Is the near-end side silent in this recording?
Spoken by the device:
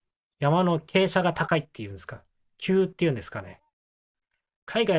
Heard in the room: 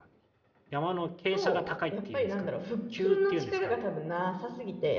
No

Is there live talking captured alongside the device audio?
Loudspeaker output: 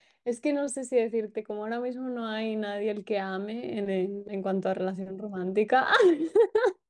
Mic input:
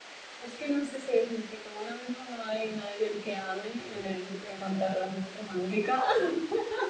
No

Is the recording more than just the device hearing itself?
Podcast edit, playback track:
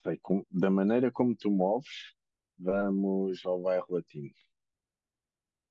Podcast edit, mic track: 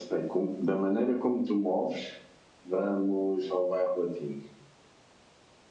No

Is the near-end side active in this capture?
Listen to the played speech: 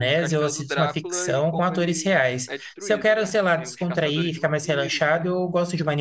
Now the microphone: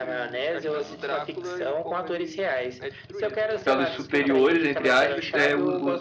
Yes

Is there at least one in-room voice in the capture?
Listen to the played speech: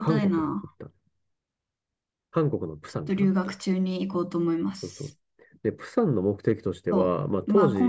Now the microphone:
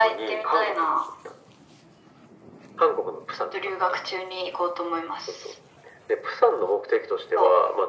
No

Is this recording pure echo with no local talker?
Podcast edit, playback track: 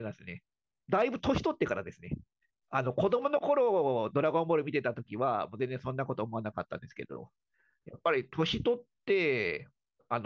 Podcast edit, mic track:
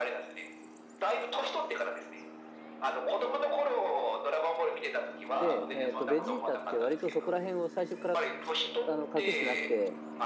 No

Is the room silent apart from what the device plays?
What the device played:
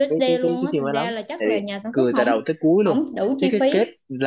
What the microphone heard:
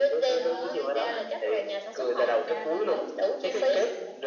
No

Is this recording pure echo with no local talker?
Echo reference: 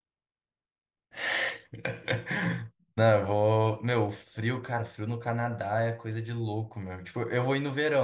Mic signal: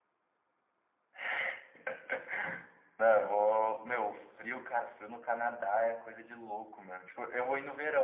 Yes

